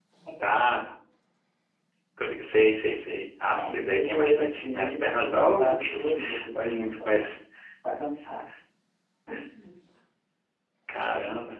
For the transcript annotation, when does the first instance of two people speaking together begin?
3.5 s

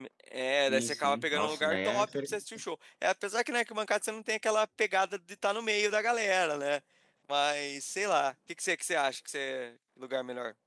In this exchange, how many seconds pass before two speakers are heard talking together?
0.7 s

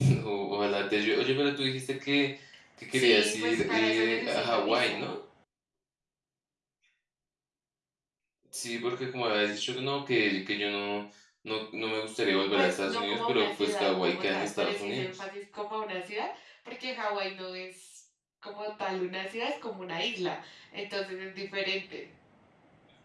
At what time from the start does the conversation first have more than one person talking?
2.9 s

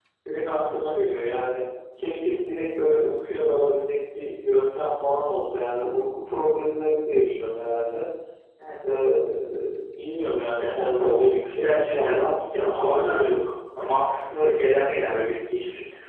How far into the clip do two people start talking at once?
10.6 s

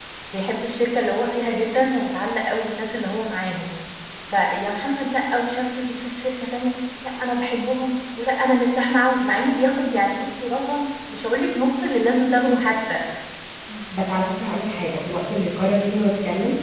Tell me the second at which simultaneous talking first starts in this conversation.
none

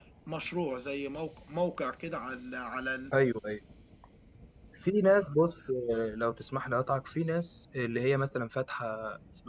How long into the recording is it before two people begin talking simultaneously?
none

